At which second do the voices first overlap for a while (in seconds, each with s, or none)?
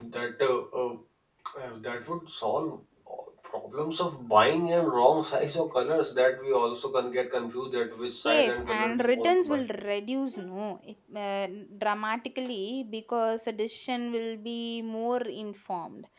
8.2 s